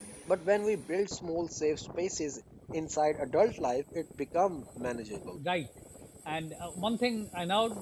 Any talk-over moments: No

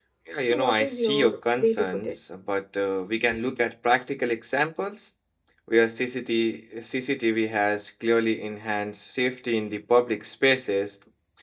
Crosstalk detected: Yes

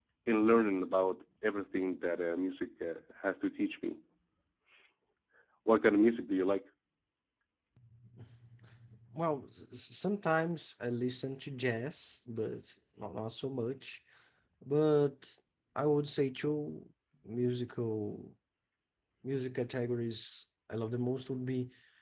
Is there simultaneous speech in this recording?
No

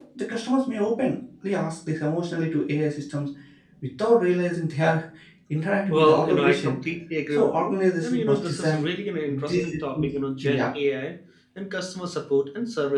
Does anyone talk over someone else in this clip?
Yes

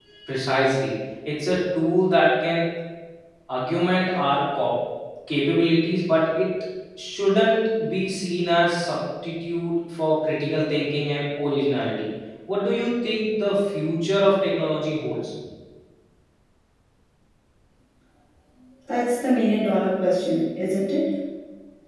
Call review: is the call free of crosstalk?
Yes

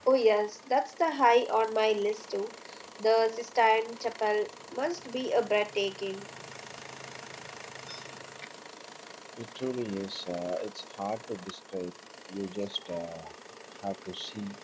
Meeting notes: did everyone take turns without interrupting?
Yes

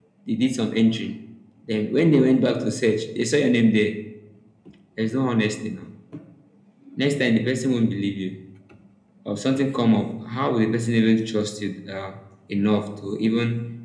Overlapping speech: No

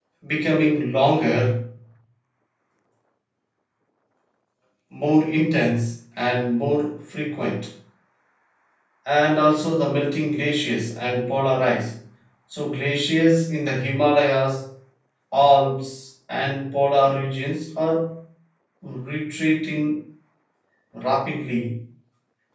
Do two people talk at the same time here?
No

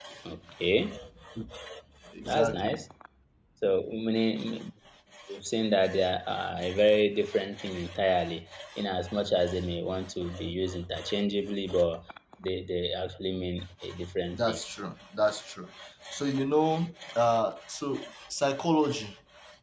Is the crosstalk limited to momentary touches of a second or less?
Yes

